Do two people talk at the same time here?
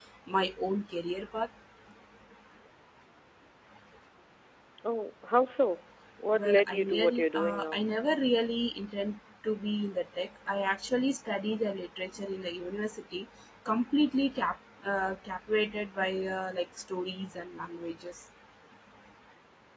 Yes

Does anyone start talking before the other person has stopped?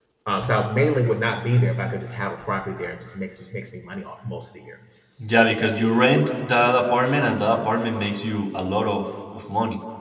No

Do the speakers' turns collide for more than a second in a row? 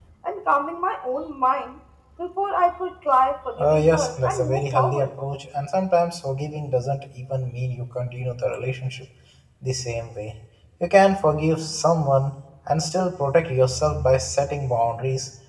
Yes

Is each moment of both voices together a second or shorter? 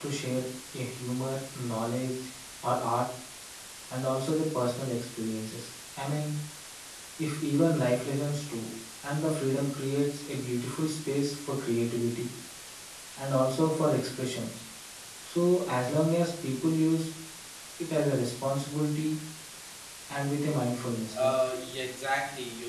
Yes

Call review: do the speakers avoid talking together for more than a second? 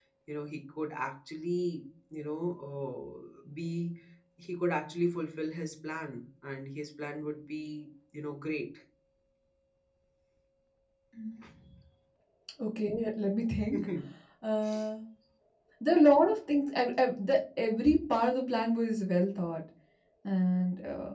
Yes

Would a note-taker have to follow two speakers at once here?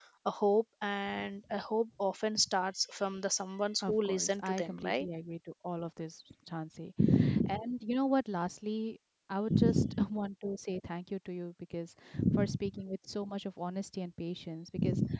Yes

